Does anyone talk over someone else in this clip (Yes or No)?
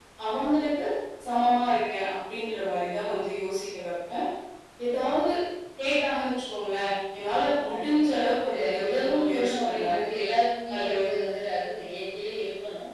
Yes